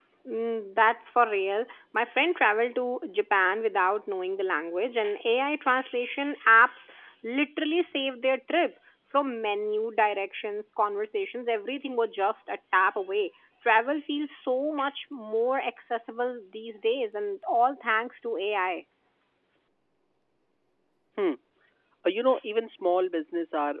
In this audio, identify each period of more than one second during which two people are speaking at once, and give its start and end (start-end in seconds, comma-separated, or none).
none